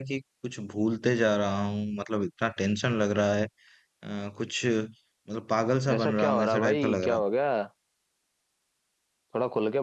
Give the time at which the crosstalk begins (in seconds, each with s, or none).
5.8 s